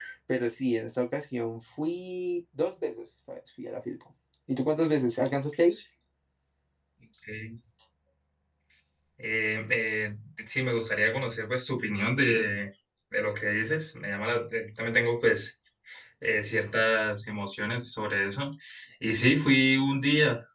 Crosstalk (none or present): none